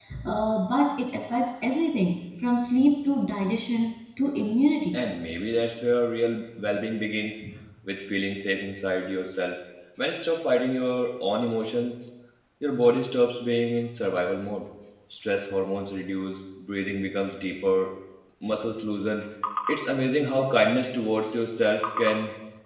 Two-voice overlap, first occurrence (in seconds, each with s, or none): none